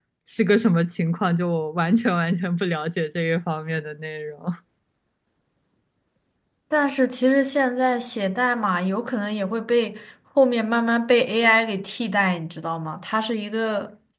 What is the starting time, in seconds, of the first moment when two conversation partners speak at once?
none

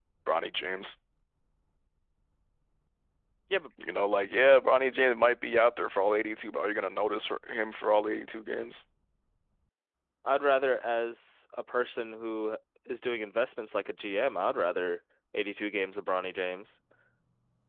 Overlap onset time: none

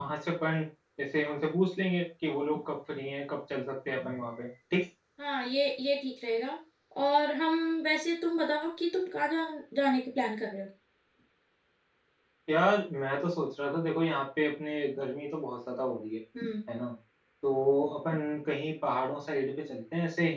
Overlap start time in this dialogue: none

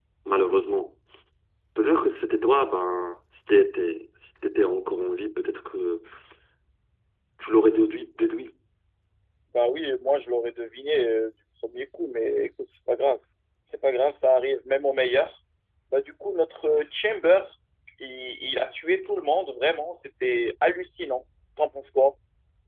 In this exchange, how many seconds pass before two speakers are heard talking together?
none

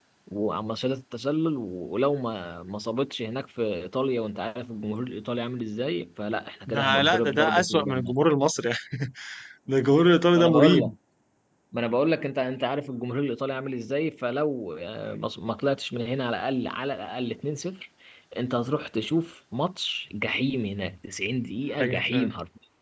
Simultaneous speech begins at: 6.7 s

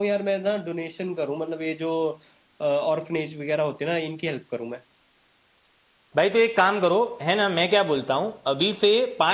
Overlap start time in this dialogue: none

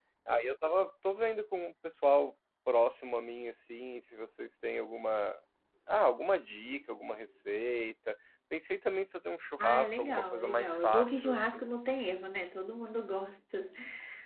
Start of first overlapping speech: 9.6 s

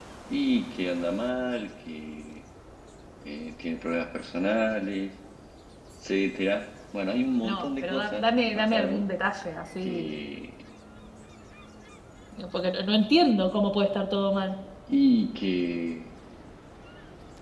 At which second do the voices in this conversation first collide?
7.5 s

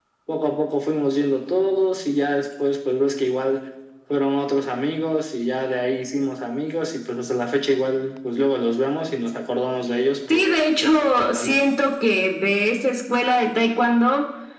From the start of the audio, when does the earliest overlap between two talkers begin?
10.3 s

